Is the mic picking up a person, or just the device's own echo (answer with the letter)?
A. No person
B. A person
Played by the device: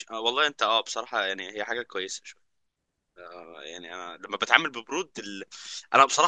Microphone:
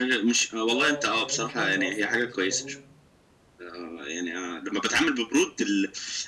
B